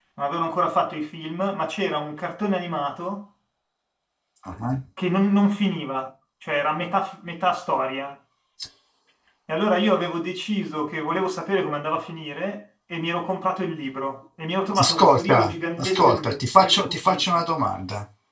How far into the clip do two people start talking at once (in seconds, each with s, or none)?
14.7 s